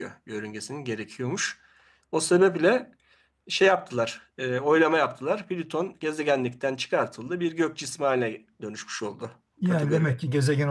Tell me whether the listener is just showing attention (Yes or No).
No